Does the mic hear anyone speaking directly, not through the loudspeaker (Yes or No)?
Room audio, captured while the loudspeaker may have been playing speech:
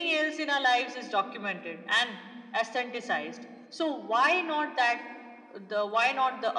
No